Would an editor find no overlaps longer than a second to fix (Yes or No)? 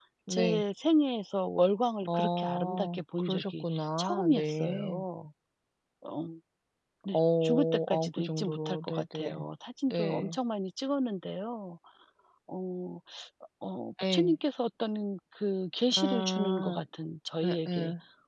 No